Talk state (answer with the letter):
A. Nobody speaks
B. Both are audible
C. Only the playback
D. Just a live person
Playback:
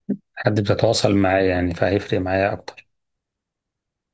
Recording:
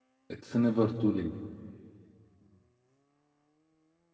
D